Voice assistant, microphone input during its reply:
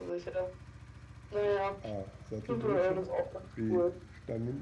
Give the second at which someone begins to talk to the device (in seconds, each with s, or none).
1.3 s